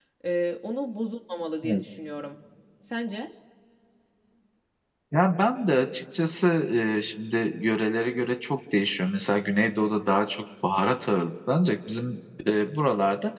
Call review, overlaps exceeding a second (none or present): none